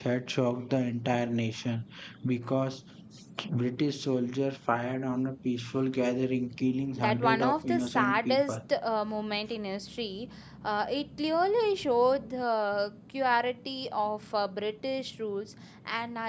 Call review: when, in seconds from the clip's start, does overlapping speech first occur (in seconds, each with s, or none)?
7.0 s